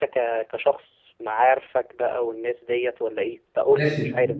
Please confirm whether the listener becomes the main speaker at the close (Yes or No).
Yes